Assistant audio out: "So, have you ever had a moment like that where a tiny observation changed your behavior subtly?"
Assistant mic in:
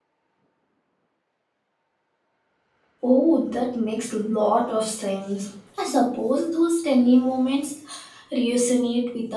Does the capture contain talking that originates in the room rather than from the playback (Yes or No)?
Yes